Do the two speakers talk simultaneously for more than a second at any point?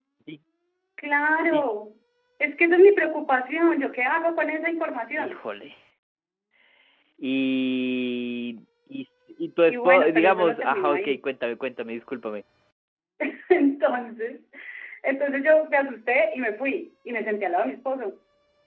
Yes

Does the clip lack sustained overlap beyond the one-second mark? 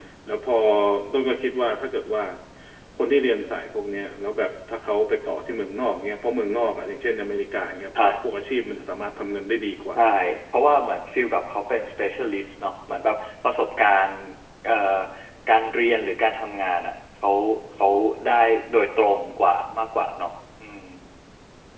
Yes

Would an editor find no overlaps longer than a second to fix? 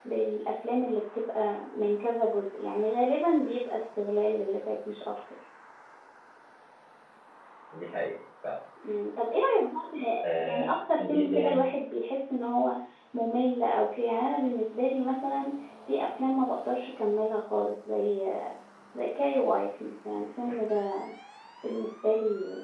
No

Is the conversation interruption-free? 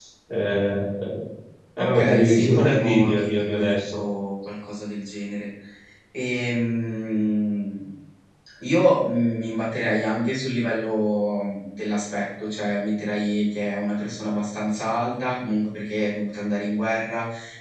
No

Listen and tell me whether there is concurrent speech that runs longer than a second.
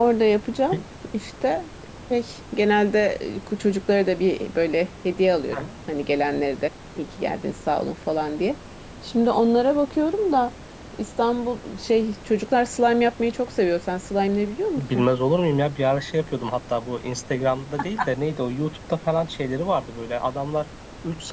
No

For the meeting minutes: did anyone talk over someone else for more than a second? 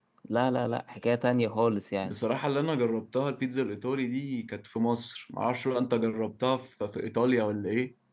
No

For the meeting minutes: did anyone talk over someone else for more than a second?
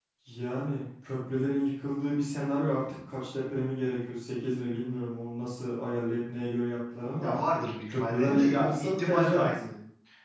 Yes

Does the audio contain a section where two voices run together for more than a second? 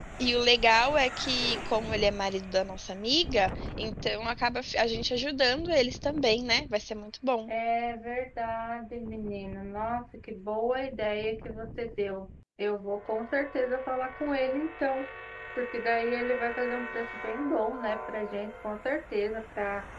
No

